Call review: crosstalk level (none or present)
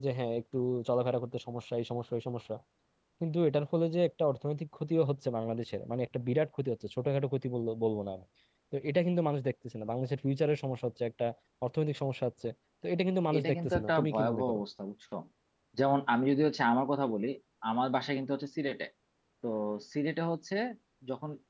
present